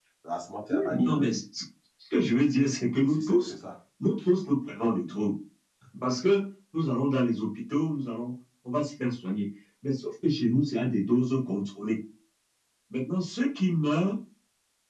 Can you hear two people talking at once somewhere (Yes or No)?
Yes